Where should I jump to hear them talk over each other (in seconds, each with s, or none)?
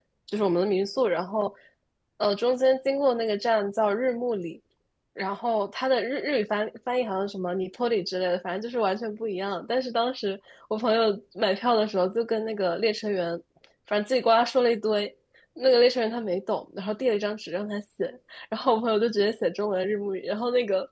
none